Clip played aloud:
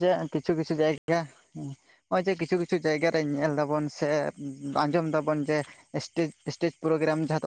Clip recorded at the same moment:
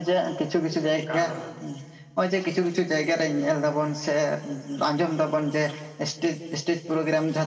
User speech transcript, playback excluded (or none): ᱠᱟᱛᱷᱟ ᱫᱚ